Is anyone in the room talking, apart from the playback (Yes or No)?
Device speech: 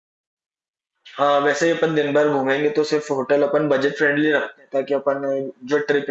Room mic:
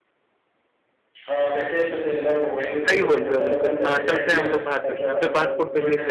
Yes